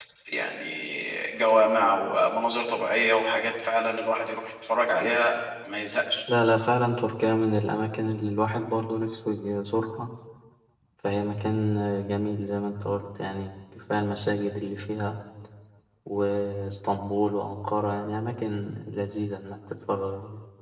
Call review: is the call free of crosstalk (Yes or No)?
Yes